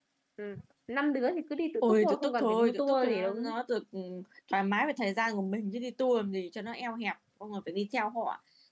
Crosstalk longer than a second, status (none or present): present